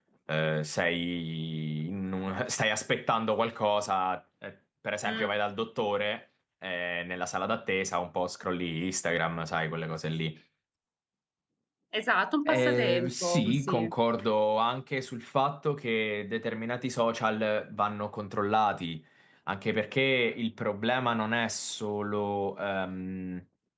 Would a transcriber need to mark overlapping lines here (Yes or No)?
Yes